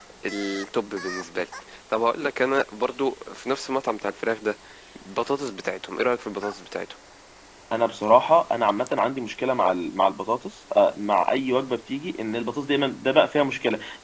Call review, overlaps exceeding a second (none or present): none